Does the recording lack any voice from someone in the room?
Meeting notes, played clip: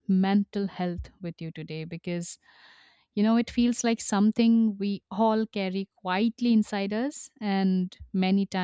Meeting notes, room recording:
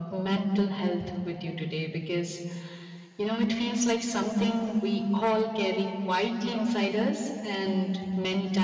Yes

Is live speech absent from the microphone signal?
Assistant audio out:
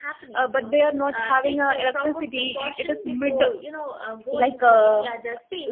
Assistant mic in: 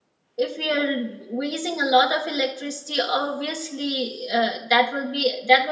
No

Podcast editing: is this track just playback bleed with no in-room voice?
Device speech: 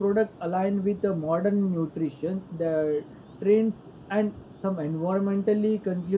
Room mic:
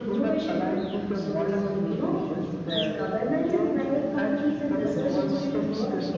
No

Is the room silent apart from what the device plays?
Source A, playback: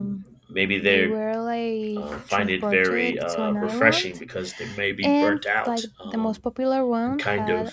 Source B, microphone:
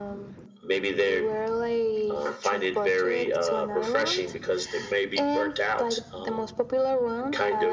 Yes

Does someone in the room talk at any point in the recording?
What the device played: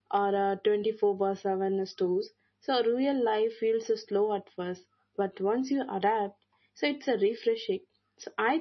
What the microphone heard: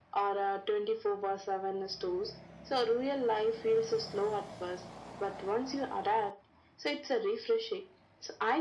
No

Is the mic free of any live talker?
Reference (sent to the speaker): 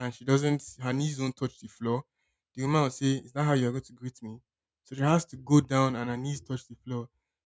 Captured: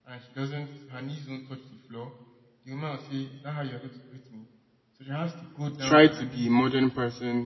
No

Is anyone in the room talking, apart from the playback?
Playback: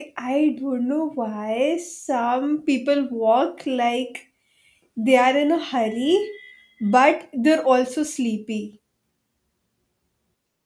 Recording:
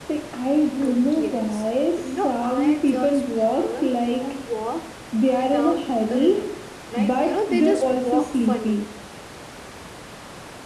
Yes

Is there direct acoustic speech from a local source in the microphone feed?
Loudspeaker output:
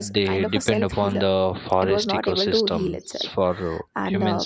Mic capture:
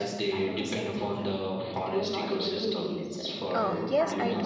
Yes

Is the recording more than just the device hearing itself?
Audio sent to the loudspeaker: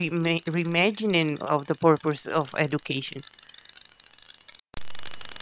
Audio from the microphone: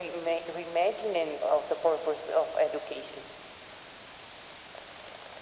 No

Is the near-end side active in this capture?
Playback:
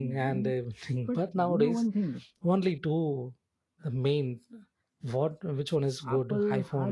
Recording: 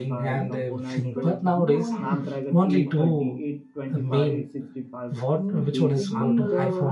Yes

